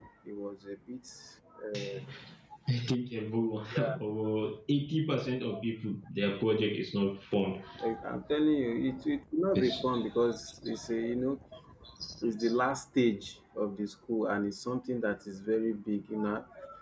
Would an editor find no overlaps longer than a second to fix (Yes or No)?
Yes